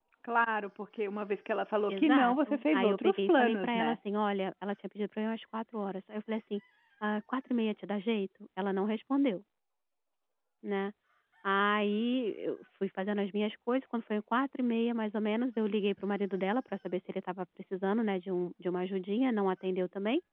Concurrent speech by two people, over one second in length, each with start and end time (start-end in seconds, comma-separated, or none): 1.9-4.0